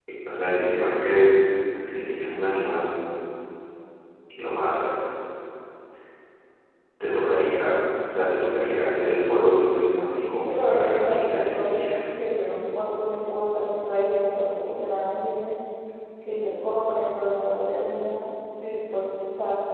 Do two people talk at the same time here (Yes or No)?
Yes